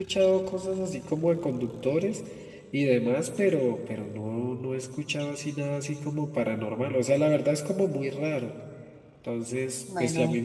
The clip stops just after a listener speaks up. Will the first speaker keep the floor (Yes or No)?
Yes